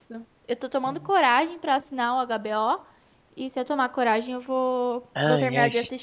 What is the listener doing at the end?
taking over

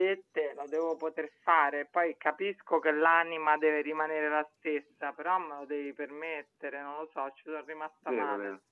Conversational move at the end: taking over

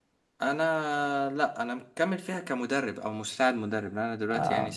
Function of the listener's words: listening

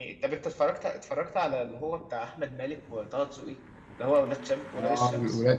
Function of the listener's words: taking over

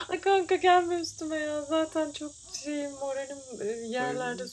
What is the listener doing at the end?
taking over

